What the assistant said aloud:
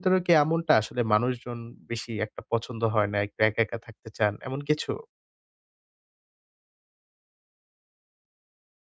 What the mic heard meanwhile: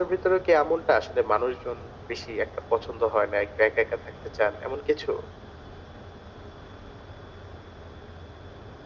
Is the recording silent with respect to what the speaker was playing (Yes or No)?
No